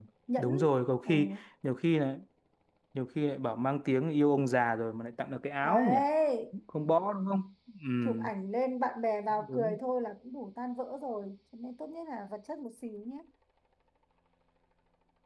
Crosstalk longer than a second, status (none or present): none